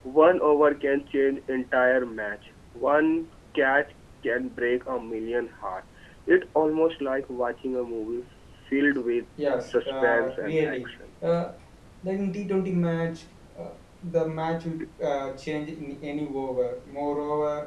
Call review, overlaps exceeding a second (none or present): present